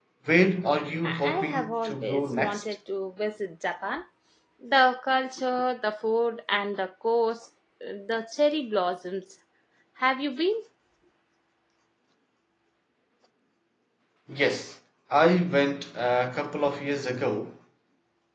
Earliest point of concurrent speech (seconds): 1.0 s

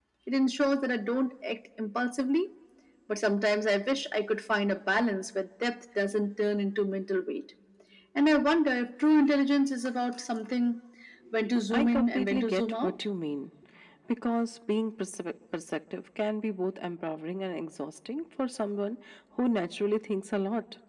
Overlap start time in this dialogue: 11.7 s

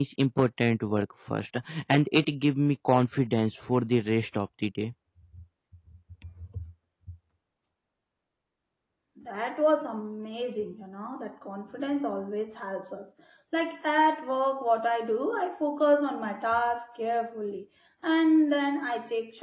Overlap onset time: none

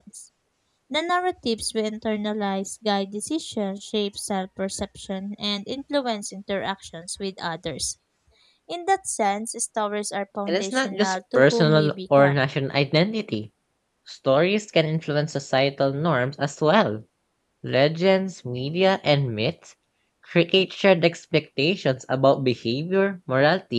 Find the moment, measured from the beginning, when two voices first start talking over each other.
10.5 s

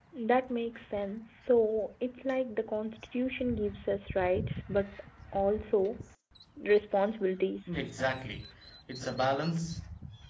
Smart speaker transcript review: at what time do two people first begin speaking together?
none

